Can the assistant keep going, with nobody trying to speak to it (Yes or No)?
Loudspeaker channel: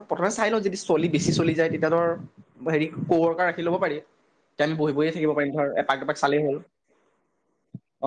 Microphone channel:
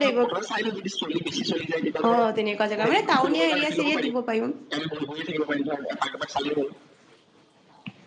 No